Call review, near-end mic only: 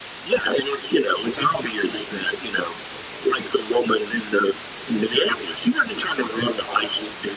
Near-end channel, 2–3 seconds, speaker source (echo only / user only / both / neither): echo only